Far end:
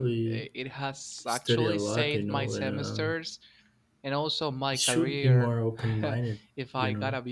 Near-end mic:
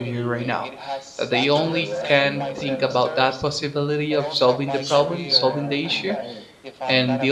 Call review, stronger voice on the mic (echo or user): user